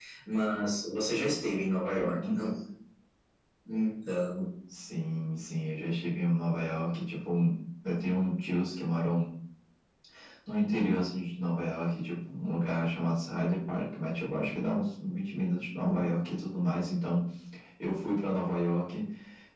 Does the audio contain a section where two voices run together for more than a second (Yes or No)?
No